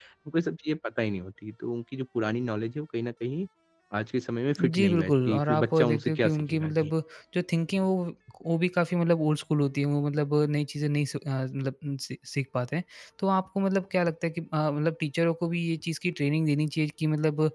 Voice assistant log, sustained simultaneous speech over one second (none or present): present